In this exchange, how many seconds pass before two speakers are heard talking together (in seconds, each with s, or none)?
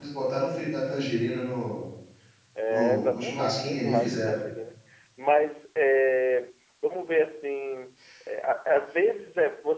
2.7 s